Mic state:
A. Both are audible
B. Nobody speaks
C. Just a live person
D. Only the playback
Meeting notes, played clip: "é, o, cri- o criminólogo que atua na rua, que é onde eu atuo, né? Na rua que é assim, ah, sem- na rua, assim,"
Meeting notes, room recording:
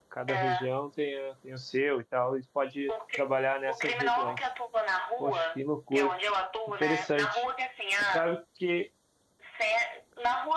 A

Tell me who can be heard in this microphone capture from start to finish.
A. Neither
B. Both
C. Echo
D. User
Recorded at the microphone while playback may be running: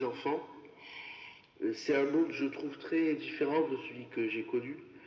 C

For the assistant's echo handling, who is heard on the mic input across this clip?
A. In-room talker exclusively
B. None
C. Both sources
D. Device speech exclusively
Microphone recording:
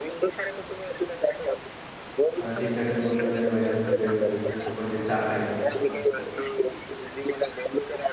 C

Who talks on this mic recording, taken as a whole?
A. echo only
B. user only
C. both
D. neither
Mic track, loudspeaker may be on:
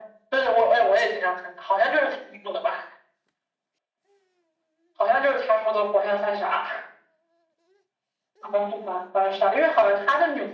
A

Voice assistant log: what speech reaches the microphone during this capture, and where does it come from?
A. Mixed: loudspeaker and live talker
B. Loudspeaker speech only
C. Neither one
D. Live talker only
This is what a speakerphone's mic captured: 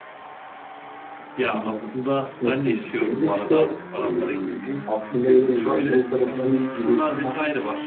A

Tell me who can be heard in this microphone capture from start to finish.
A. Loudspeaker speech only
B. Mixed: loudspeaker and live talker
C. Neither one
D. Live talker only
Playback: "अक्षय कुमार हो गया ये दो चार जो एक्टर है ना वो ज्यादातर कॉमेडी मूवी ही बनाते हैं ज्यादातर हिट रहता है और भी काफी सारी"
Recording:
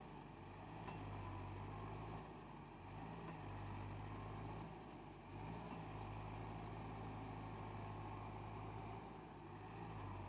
C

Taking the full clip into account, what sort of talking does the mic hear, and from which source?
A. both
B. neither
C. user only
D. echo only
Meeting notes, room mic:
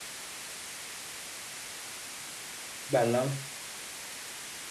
C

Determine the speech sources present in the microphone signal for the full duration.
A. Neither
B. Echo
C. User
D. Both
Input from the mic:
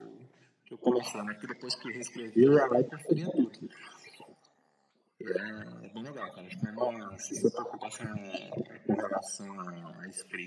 B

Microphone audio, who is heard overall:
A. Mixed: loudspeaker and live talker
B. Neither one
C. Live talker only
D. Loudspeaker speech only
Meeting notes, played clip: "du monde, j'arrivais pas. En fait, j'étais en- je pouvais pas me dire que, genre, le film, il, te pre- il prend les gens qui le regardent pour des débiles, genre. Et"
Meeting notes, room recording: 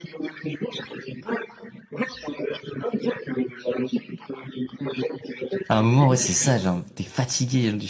A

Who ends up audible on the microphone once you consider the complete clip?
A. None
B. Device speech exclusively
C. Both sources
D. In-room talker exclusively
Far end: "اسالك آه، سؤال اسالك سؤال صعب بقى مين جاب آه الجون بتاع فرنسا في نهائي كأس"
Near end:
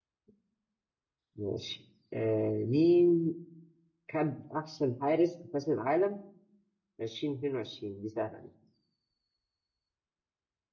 D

